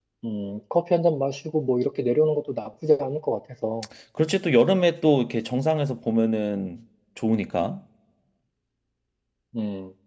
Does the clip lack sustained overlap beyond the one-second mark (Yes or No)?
Yes